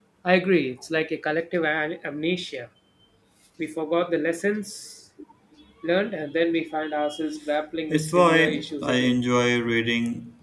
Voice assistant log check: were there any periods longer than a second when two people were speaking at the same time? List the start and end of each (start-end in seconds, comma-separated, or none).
7.9-9.2